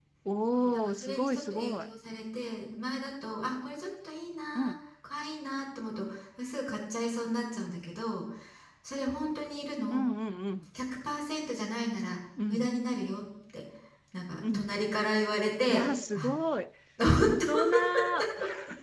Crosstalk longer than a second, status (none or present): present